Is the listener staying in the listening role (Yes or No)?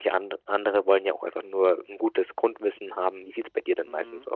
No